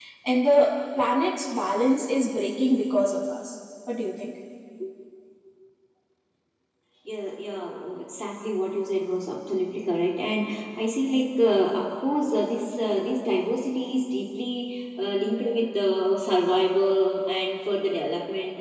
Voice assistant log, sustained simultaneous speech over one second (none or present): none